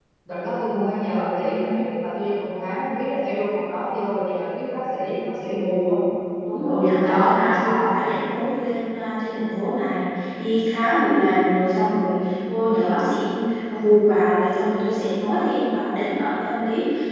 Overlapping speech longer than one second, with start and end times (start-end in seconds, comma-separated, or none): 6.6-7.9